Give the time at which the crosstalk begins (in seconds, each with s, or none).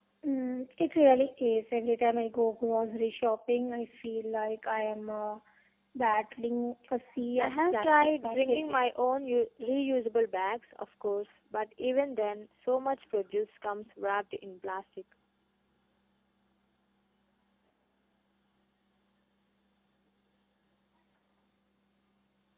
7.4 s